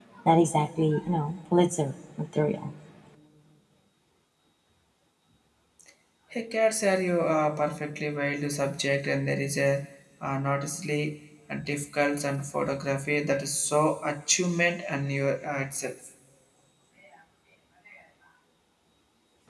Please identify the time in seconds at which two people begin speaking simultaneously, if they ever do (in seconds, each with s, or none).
none